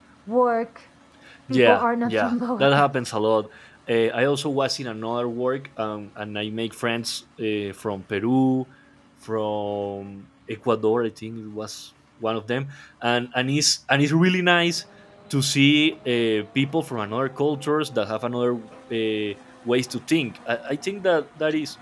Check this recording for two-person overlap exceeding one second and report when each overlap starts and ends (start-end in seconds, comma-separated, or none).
1.5-2.9